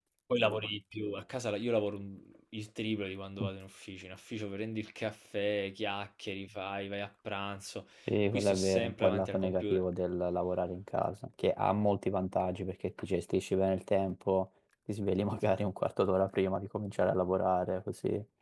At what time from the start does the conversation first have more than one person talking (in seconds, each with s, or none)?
8.3 s